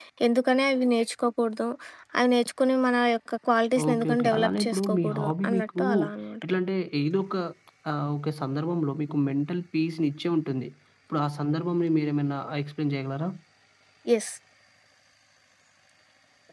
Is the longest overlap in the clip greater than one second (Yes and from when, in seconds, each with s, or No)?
Yes, from 3.8 s